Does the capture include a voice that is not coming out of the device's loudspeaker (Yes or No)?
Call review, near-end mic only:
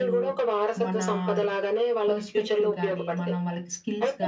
Yes